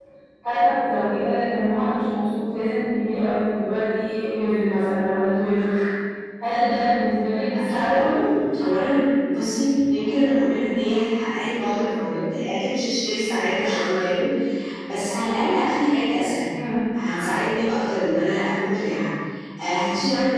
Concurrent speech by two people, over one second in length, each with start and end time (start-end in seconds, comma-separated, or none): none